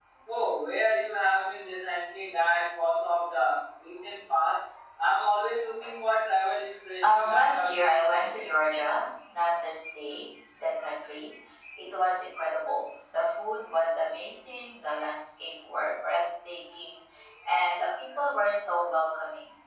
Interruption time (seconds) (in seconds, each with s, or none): 7.0 s